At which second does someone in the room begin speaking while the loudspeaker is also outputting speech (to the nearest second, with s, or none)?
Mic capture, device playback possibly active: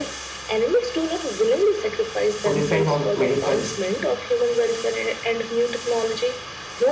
2 s